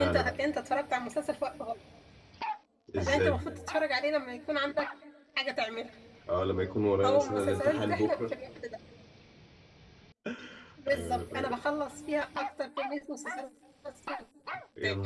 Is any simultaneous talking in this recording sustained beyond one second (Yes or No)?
Yes